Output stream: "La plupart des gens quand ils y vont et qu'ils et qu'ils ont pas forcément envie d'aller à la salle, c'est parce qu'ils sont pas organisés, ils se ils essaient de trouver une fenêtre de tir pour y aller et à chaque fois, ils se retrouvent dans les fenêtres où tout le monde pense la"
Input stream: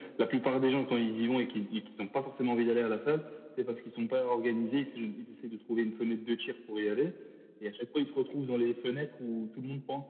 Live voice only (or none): none